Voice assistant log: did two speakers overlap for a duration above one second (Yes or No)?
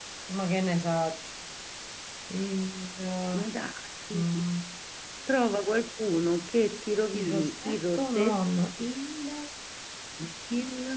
Yes